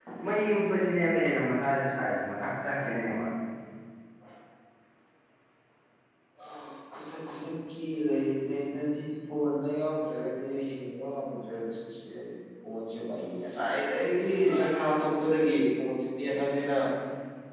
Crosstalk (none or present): none